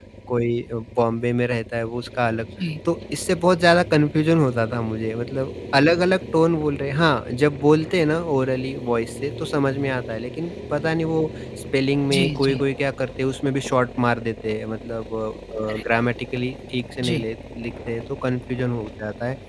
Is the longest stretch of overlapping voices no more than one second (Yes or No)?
Yes